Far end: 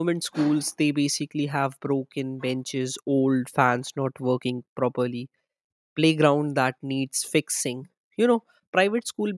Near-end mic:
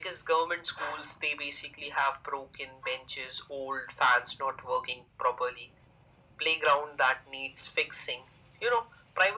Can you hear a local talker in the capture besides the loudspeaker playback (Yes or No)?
No